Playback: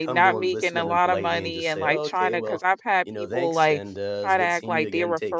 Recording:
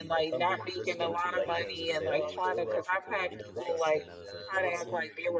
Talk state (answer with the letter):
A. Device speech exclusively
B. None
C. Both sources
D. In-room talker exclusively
C